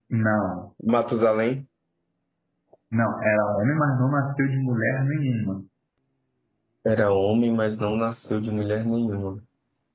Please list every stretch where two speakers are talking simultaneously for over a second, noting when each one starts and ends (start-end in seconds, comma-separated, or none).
none